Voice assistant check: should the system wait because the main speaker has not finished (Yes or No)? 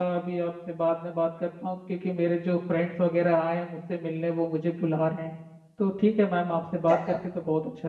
Yes